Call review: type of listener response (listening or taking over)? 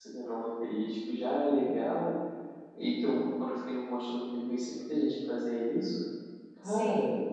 listening